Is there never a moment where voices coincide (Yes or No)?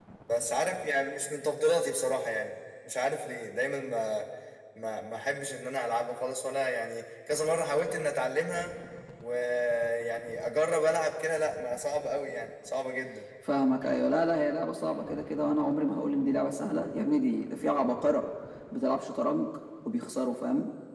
Yes